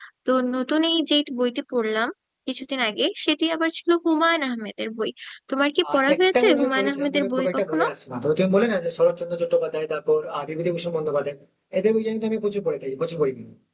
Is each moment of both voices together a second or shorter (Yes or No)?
No